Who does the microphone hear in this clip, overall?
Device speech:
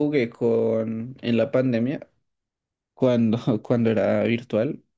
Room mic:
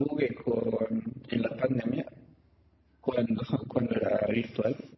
echo only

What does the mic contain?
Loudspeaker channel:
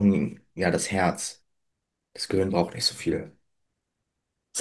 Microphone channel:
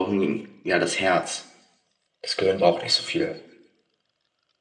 echo only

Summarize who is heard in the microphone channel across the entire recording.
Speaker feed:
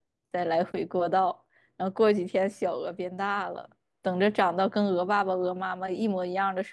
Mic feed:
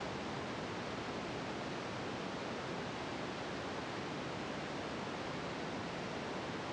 neither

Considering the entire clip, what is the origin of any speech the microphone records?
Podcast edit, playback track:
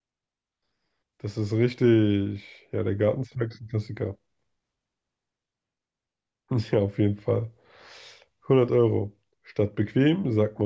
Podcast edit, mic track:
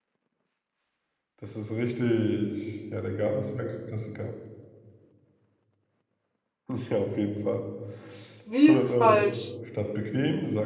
both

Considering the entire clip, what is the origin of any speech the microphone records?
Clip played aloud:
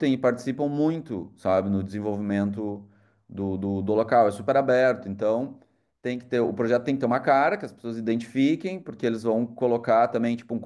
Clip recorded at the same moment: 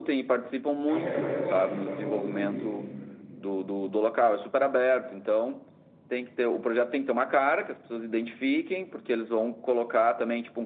both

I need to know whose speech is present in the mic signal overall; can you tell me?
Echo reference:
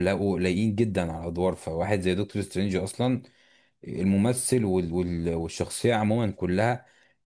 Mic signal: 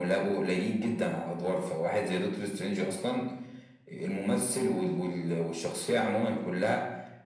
echo only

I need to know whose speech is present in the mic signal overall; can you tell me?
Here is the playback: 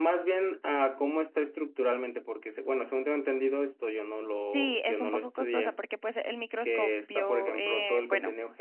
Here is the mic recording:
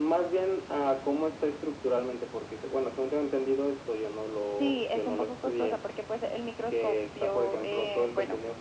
echo only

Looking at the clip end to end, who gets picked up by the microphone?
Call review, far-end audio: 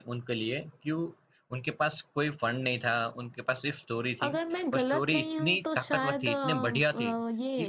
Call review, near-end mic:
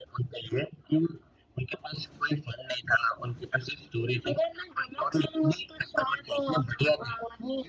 echo only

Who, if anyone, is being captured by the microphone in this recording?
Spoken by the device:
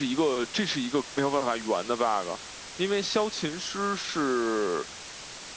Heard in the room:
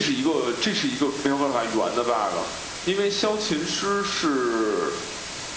echo only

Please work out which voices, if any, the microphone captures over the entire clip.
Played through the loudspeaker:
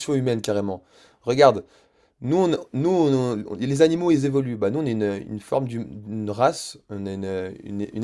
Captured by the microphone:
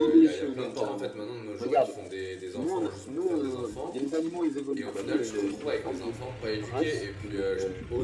both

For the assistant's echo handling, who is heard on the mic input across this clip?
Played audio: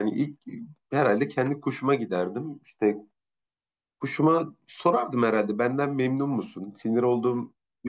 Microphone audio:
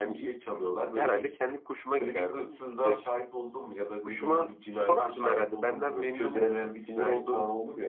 both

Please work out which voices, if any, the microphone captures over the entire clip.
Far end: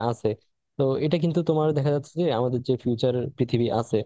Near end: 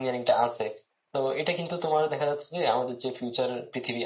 echo only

